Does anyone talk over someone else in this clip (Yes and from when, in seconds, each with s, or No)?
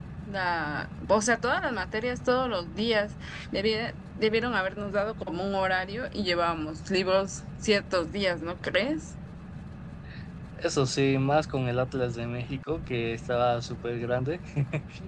No